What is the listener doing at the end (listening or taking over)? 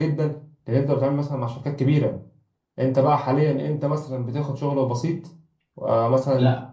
taking over